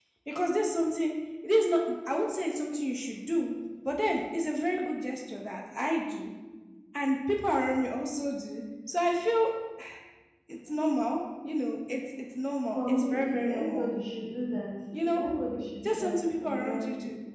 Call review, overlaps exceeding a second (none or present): present